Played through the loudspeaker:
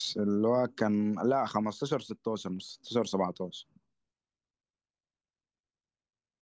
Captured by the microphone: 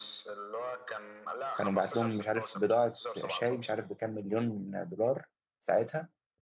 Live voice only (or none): كانوا بعت لهم مش عارف بضاعة شاي مش عارف بكام مليون دولار ساعتها